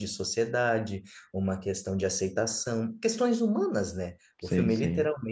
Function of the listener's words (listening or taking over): listening